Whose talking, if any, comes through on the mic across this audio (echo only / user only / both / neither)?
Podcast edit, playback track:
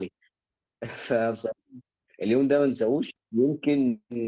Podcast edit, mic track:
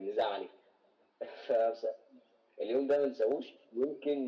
echo only